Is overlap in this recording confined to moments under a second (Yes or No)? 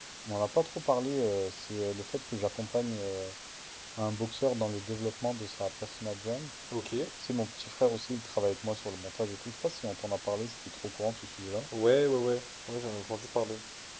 Yes